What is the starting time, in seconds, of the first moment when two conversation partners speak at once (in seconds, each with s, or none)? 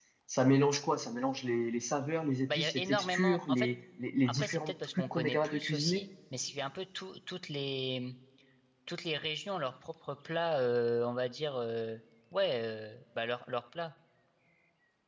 2.5 s